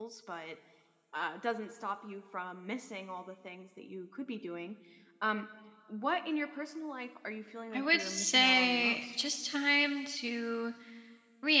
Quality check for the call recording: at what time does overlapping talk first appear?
8 s

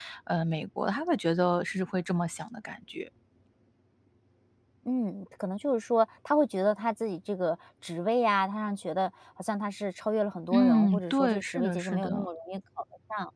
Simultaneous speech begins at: 11 s

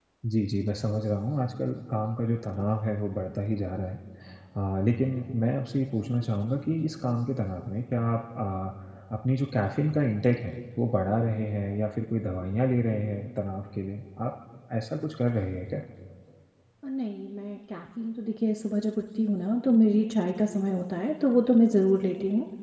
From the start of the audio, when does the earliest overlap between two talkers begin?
none

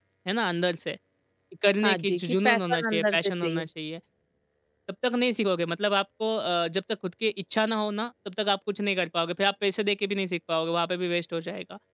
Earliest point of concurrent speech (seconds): 2 s

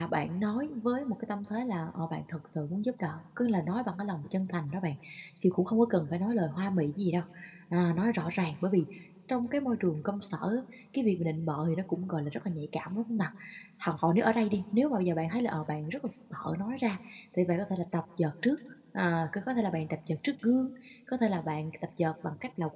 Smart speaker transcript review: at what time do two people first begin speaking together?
none

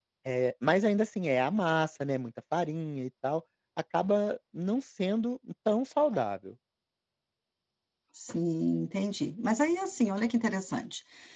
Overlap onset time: none

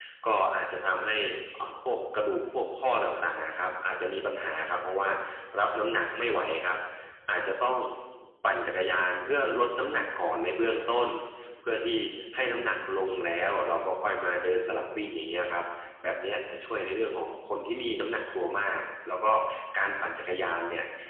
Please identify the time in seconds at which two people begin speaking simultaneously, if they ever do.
none

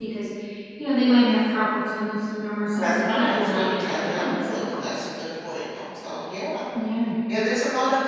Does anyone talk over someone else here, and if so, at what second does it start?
3 s

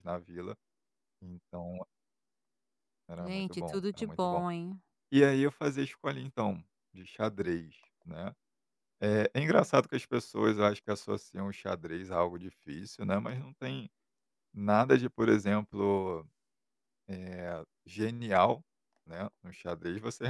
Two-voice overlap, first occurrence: 3 s

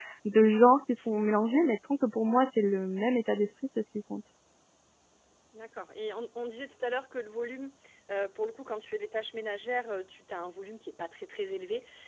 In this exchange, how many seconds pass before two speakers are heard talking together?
none

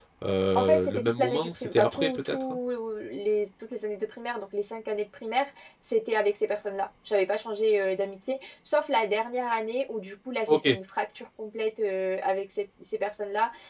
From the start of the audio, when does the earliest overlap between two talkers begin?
1 s

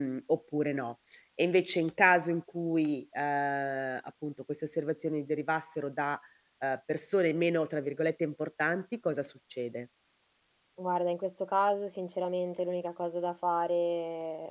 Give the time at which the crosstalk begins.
none

